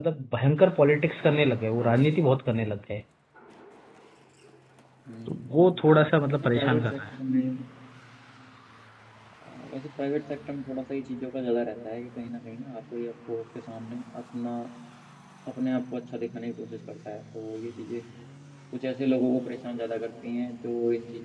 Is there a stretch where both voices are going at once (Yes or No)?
Yes